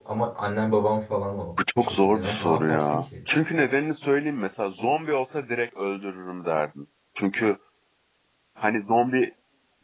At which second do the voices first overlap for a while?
2 s

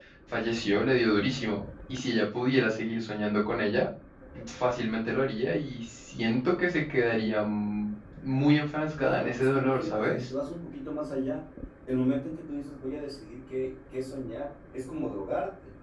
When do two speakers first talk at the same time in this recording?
9 s

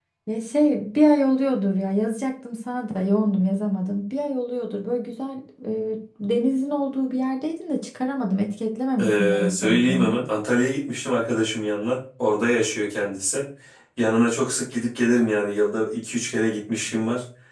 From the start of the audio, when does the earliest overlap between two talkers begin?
9 s

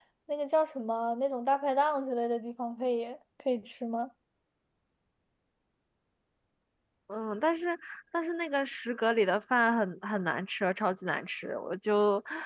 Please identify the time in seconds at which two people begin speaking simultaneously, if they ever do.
none

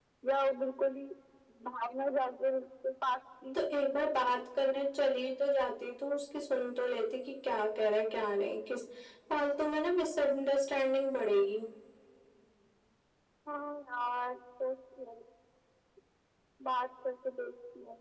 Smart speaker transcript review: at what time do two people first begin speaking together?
none

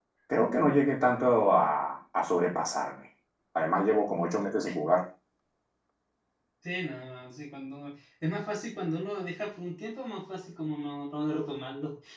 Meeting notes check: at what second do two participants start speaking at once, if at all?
none

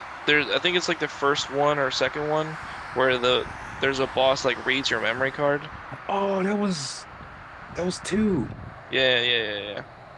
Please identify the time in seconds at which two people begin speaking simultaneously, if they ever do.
none

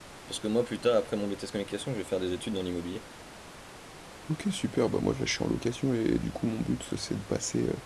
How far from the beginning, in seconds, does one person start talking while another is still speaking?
none

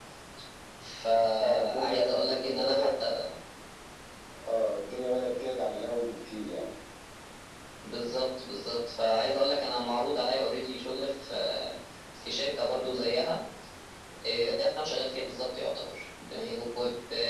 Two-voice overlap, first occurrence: 1 s

